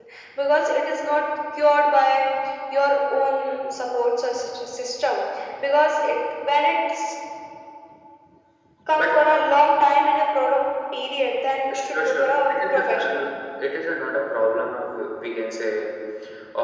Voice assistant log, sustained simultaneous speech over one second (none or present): present